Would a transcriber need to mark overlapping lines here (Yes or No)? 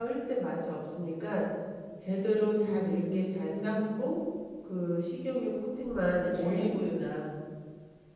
Yes